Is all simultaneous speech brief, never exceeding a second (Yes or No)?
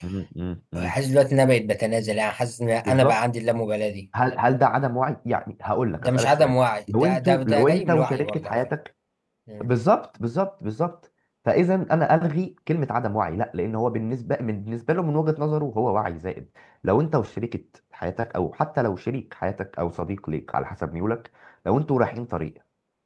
No